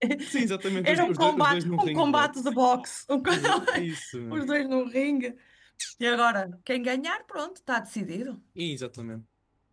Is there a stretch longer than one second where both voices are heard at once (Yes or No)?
Yes